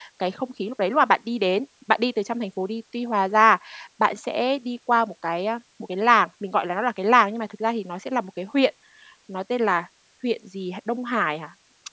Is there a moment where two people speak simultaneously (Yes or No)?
No